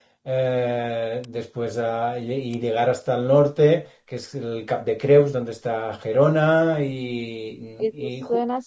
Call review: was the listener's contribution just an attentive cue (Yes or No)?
No